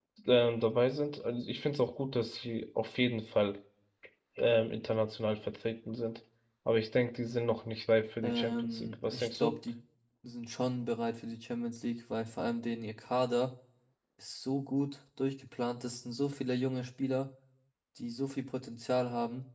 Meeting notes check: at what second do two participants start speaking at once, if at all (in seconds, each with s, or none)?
8.2 s